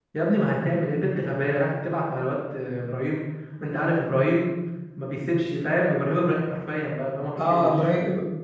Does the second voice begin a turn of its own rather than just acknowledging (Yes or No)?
Yes